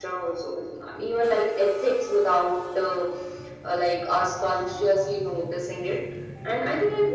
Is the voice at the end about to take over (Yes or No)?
No